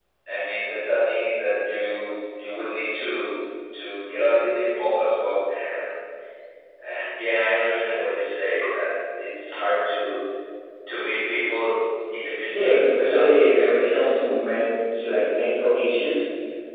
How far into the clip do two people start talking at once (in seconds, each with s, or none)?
12.4 s